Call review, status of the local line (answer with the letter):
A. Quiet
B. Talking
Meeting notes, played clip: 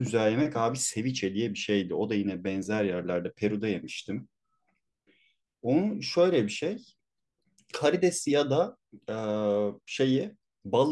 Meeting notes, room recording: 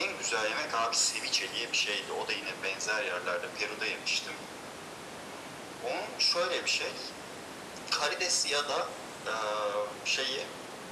A